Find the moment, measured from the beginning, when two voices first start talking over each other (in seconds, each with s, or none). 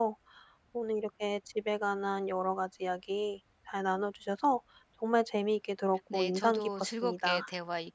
6.1 s